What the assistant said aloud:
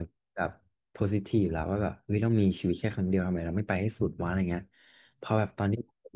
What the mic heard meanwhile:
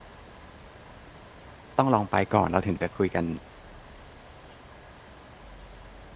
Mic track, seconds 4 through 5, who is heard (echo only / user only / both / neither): neither